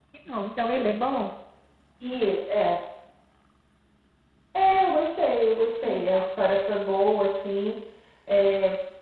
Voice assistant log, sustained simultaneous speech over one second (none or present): none